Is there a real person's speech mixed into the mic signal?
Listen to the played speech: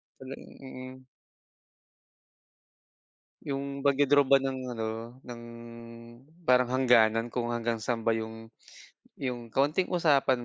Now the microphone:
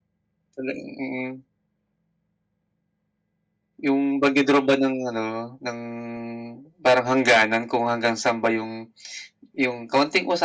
No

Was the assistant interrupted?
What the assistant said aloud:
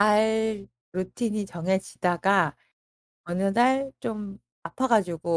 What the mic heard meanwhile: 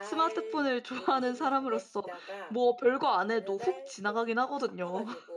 Yes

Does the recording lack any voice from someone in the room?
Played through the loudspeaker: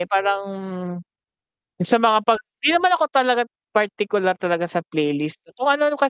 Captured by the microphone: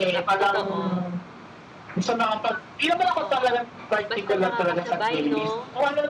No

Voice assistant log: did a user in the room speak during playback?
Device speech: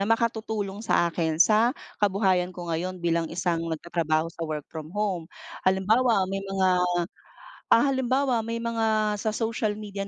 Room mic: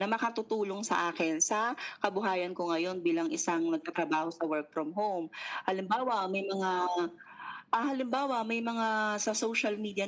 No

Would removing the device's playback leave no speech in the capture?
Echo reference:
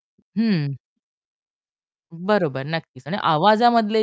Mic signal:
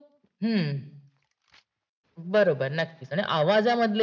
Yes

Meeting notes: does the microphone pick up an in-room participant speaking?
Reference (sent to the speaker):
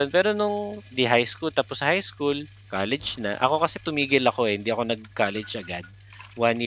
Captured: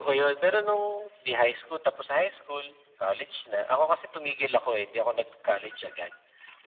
No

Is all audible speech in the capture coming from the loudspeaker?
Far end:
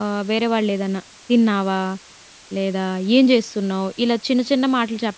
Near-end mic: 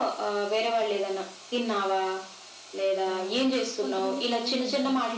No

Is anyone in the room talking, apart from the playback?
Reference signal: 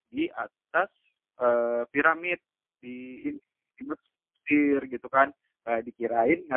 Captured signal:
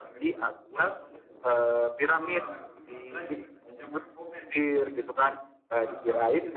Yes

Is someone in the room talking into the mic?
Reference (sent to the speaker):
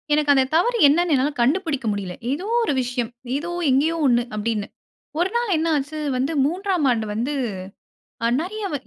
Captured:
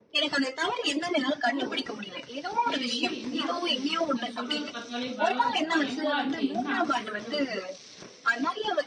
Yes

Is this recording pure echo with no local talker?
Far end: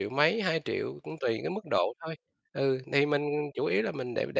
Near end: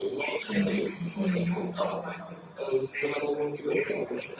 No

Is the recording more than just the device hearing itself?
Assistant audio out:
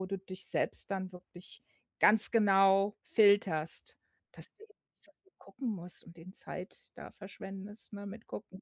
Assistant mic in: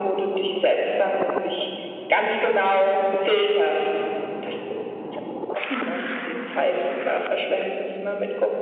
No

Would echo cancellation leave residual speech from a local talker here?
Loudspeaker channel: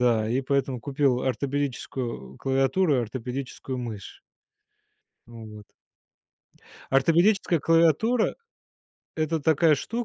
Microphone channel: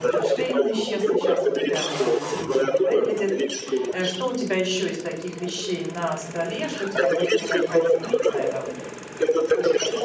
Yes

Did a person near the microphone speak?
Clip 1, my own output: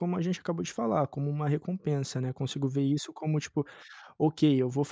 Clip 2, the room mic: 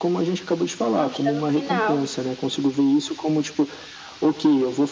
Yes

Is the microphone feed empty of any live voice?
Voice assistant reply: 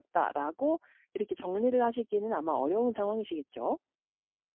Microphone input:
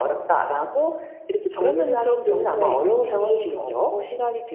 No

